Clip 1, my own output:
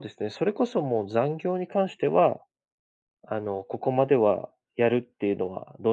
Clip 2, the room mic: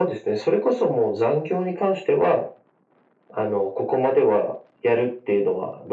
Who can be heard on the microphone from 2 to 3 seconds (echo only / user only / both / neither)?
echo only